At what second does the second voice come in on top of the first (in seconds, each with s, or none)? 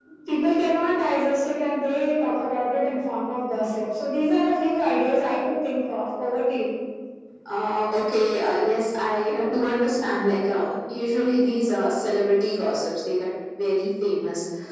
none